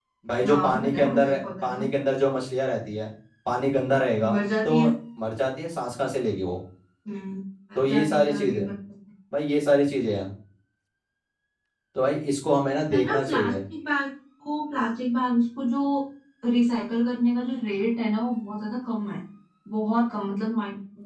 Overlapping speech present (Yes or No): Yes